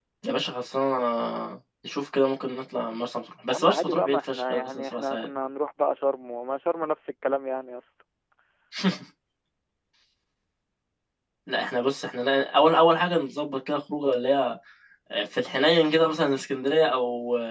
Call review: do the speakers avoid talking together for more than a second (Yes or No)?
No